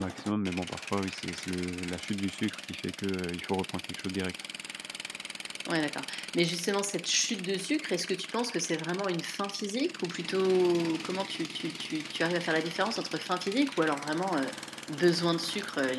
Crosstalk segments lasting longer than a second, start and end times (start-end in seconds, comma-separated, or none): none